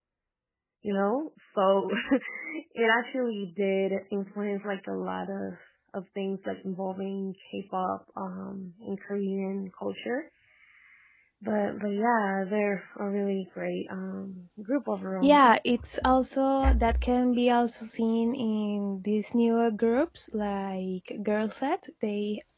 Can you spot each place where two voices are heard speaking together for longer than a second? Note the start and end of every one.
none

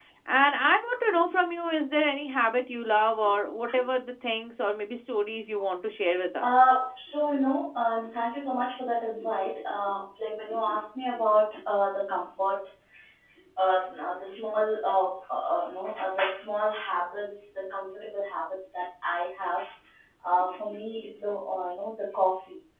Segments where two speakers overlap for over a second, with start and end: none

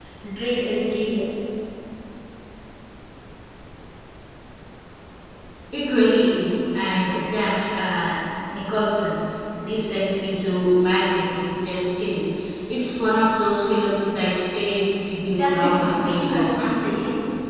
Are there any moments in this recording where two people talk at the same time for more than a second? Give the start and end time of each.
15.4-16.9

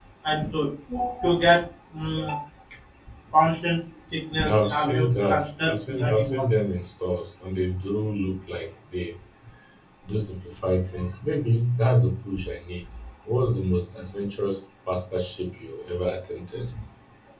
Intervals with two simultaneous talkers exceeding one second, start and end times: 4.4-6.5

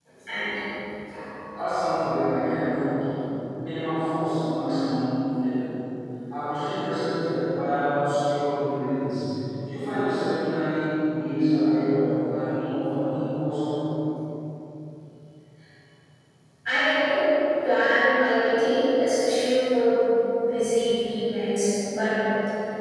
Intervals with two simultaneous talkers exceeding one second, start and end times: none

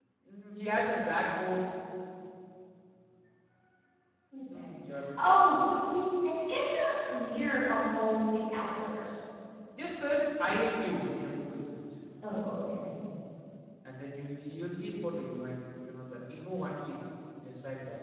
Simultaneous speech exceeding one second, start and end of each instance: none

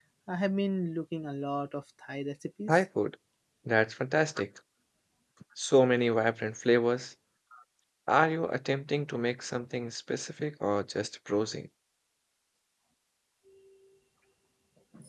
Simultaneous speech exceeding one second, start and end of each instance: none

